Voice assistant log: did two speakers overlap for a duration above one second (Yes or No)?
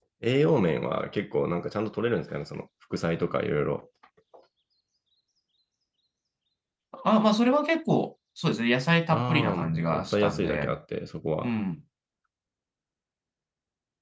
Yes